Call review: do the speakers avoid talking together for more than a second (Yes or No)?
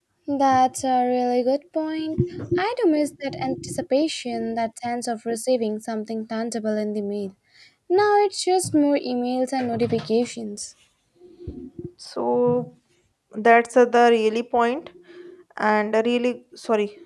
Yes